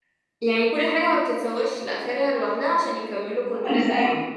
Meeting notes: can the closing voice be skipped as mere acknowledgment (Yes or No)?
No